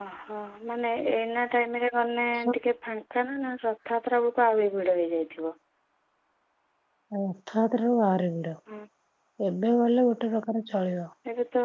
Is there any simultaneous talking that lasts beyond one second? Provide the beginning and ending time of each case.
none

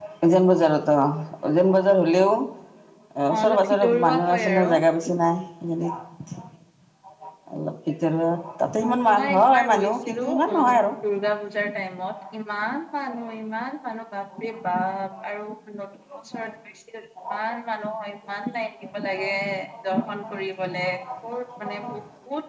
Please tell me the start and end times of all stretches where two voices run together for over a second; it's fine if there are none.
3.3-4.7, 9.1-10.6

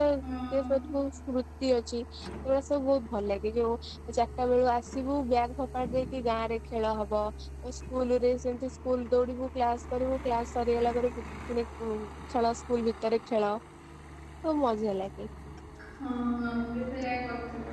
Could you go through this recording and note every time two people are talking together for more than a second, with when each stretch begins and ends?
none

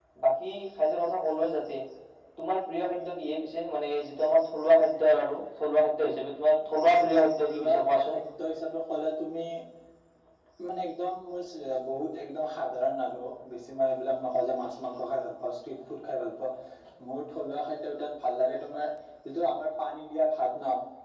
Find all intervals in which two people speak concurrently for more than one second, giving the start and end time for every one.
6.8-8.2

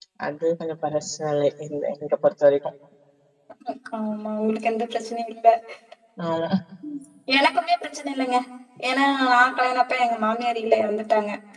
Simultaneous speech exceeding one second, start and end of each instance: none

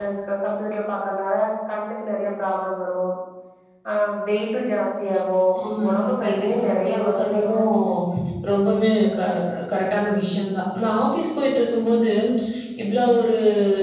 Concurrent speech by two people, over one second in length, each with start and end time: 5.9-7.5

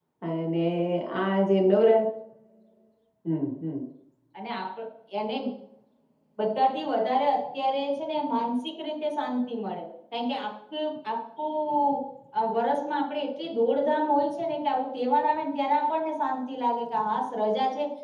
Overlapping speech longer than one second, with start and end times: none

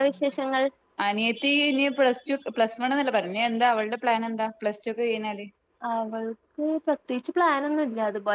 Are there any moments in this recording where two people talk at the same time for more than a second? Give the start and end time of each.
none

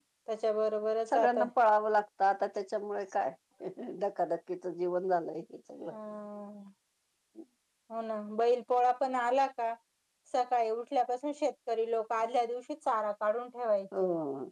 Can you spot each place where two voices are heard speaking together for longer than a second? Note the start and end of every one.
none

